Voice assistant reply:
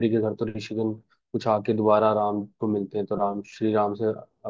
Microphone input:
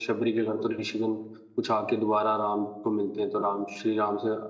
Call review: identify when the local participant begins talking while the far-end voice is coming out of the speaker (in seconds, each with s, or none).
0.4 s